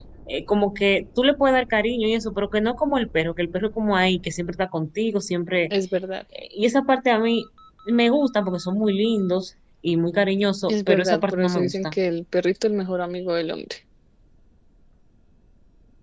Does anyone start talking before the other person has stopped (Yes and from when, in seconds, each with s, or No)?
Yes, from 10.7 s